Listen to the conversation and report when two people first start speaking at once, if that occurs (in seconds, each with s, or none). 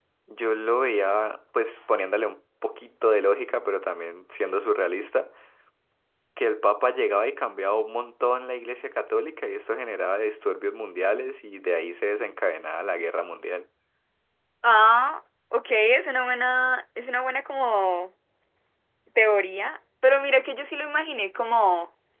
none